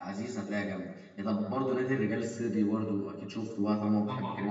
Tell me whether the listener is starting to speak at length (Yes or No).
Yes